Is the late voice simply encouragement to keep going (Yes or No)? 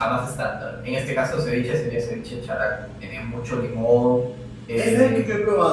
No